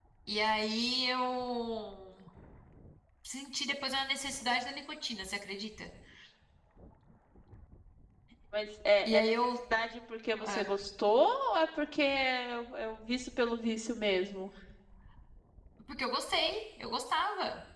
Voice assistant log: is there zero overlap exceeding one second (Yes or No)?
Yes